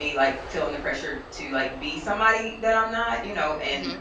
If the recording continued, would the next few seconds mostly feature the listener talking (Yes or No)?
No